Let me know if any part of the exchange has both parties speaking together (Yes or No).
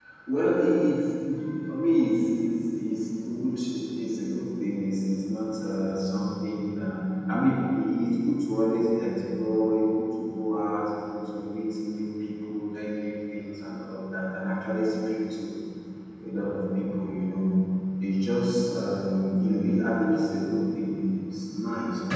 No